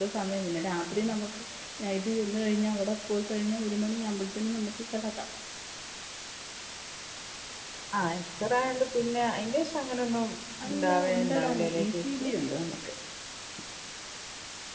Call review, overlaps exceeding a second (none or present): present